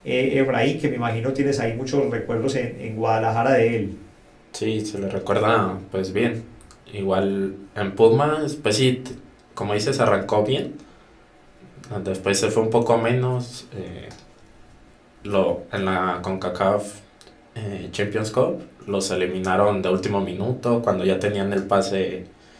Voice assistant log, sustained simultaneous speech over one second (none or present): none